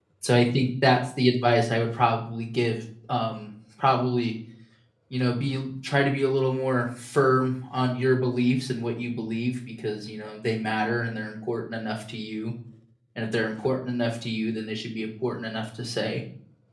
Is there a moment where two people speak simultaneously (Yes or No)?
No